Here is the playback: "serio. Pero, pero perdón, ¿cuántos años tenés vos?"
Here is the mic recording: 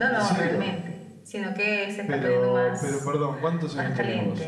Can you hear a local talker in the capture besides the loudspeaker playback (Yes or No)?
Yes